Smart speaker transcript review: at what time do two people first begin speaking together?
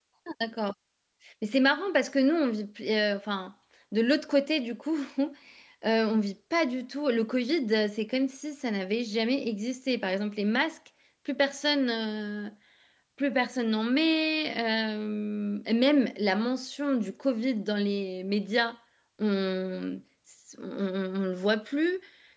none

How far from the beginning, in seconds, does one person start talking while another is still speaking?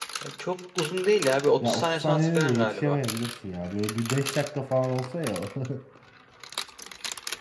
1.6 s

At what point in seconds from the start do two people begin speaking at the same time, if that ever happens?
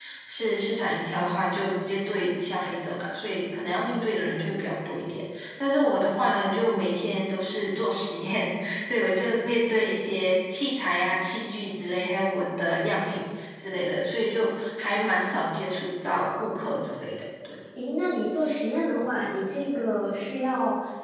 none

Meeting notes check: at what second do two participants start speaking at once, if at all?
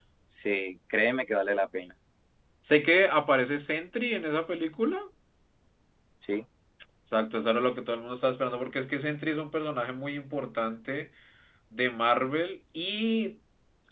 none

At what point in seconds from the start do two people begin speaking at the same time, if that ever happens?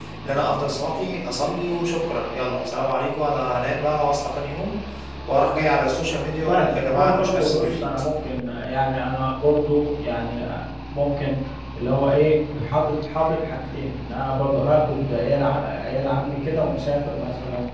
6.5 s

